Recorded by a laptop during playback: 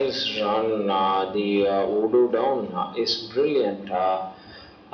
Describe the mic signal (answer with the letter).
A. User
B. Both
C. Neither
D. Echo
D